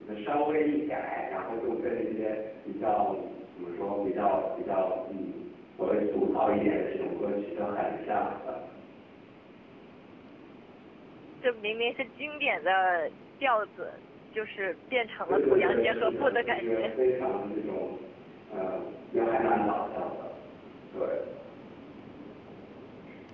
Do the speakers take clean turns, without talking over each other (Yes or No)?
No